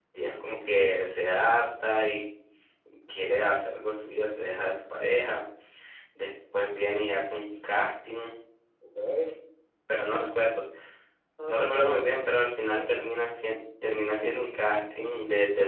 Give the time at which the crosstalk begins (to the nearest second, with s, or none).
11 s